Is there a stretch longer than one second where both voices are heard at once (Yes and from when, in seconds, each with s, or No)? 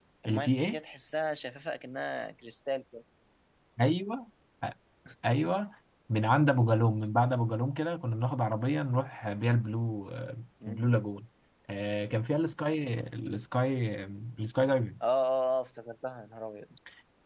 No